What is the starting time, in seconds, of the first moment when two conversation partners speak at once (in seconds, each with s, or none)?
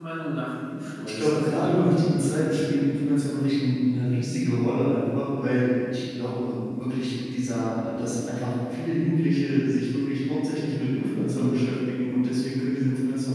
1.1 s